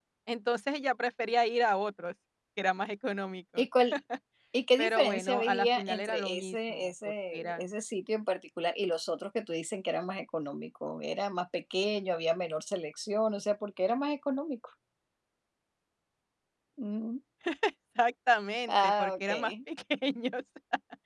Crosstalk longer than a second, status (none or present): present